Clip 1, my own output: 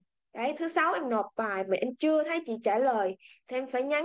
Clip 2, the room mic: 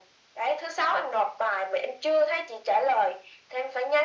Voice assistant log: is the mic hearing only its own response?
Yes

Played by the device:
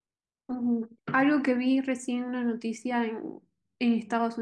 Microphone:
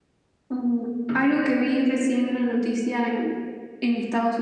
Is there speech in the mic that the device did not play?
No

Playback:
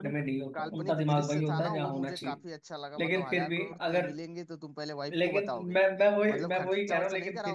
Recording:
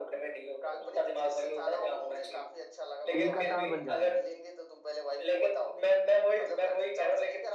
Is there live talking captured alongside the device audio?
Yes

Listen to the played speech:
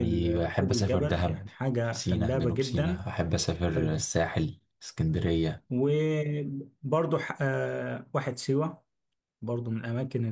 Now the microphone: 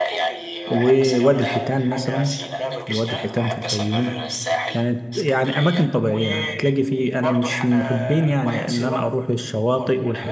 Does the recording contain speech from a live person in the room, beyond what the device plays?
Yes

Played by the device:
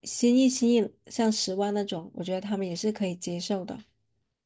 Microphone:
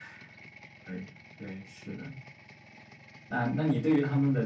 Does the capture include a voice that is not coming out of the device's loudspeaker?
Yes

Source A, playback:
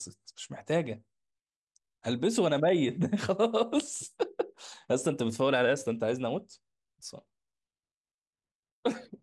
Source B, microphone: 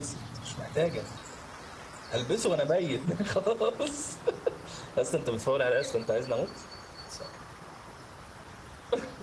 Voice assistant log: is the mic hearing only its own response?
Yes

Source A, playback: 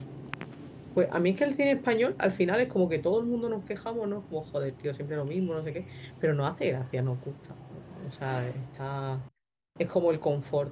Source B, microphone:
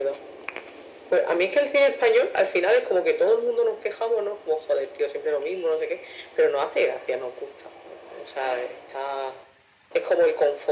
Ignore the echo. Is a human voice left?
No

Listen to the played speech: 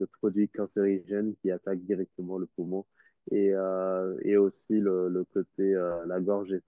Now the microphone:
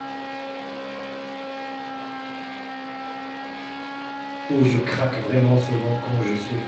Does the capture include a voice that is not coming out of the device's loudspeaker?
Yes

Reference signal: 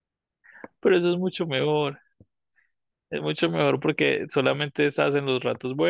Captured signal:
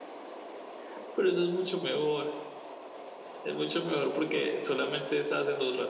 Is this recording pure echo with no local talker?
Yes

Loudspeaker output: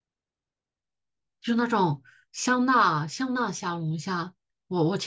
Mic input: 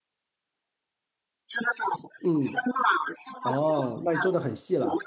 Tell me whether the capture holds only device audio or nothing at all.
No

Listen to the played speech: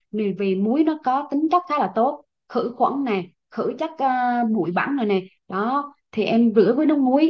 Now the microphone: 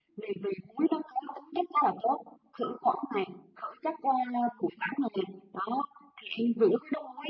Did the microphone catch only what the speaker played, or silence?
Yes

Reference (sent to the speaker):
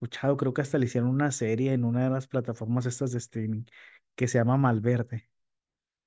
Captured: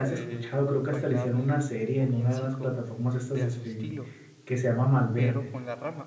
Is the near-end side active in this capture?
Yes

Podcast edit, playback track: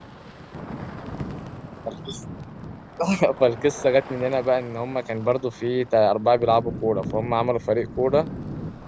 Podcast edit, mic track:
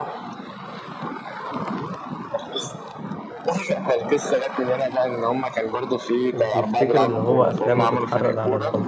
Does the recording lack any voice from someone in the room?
No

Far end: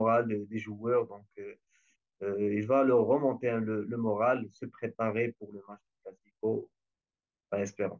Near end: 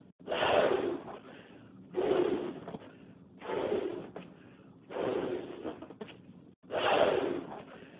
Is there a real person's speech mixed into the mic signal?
No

